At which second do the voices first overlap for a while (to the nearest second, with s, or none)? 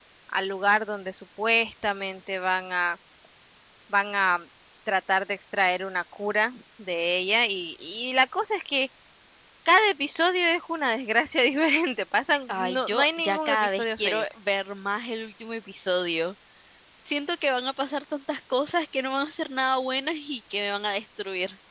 12 s